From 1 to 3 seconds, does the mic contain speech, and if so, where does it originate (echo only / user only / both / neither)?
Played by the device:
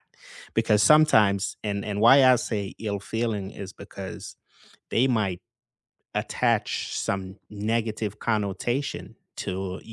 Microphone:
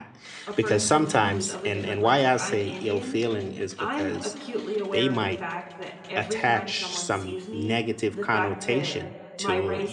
both